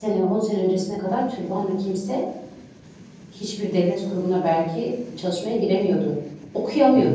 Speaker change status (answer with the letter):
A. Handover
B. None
B